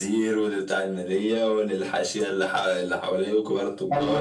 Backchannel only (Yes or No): No